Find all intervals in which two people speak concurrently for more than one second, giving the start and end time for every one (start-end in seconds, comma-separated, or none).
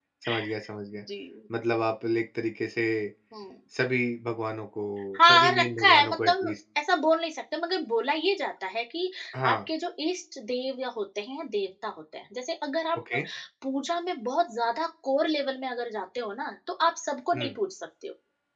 5.3-6.5